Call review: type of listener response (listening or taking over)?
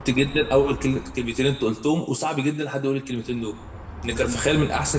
listening